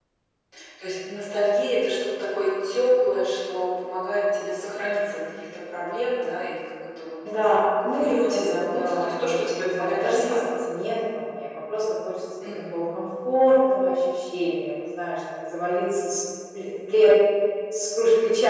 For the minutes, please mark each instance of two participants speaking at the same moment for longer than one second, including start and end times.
7.4-10.4

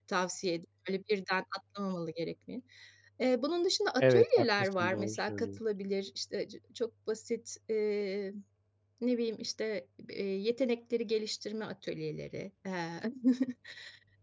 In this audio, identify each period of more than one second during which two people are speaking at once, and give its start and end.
4.0-5.6

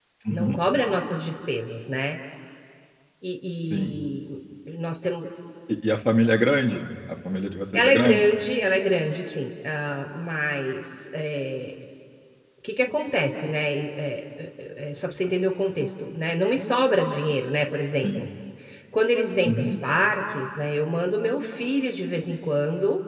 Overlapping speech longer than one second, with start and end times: none

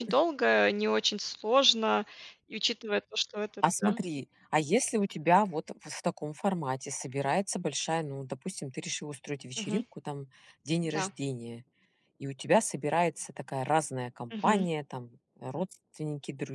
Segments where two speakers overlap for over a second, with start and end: none

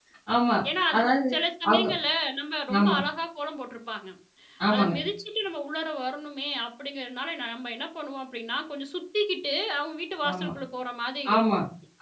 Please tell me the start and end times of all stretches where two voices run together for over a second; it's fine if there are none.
none

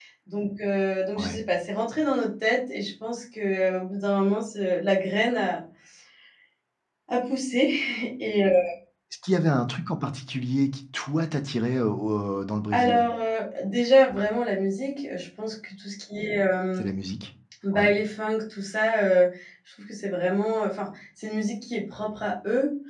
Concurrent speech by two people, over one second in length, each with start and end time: none

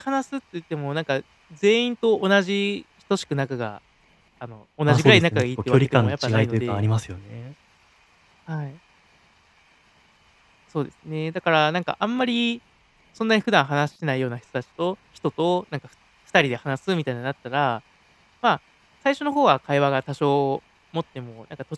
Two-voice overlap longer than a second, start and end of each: 4.9-6.8

